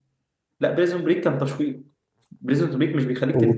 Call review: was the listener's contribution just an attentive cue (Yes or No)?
Yes